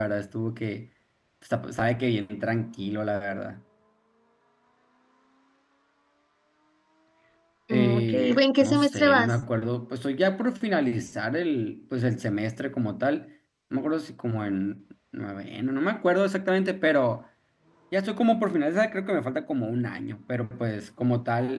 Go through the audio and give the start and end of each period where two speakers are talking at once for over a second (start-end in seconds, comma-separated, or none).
7.7-9.4